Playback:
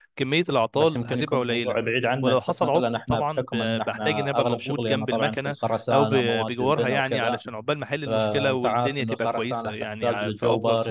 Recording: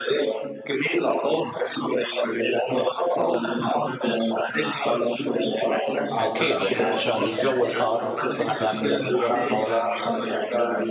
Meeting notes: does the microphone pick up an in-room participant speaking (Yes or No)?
Yes